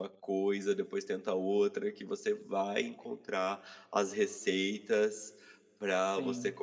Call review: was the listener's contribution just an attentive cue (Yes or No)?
Yes